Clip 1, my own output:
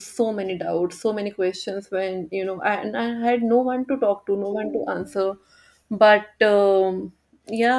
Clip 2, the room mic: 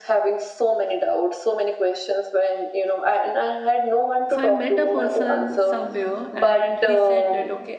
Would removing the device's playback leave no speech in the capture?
No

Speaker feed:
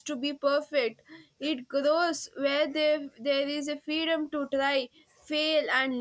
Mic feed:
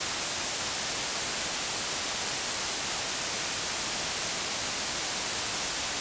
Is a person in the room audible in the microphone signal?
No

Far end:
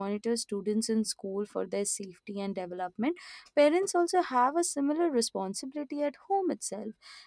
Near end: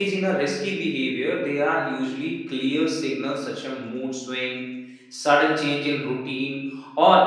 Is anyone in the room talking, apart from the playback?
Yes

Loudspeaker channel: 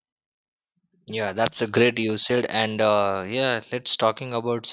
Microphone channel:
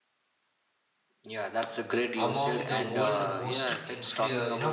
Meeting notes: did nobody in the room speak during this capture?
No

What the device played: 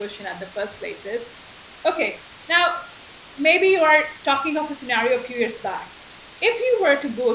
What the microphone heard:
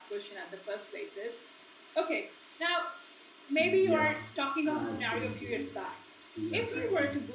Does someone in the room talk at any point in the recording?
Yes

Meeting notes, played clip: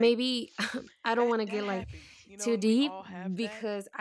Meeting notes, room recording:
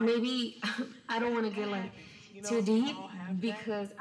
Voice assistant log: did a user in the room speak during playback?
No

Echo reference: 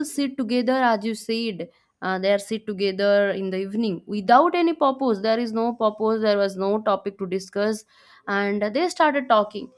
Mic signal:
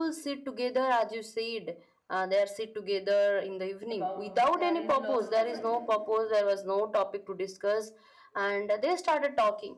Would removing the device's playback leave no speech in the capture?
No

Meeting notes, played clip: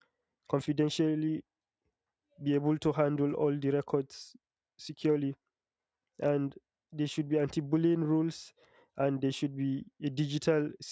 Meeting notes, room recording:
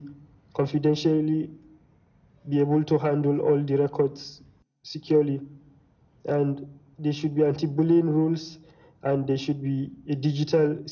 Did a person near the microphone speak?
No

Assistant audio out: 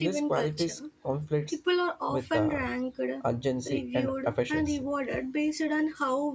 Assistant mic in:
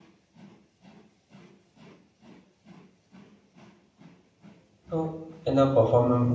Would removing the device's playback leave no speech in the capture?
No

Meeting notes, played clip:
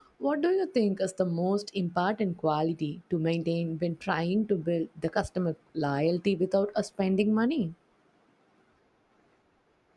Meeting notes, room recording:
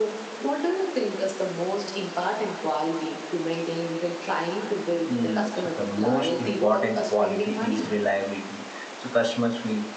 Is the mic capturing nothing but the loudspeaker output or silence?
No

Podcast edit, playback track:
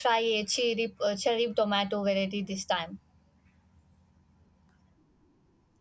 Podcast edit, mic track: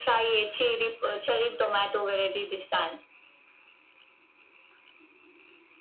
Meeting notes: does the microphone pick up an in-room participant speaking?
No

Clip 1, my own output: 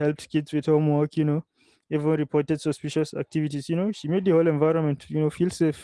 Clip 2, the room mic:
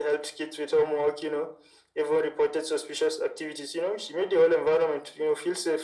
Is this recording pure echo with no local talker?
Yes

